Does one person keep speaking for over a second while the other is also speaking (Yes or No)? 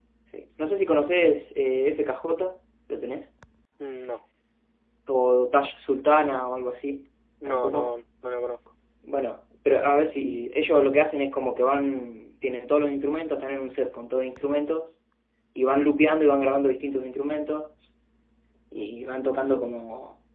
No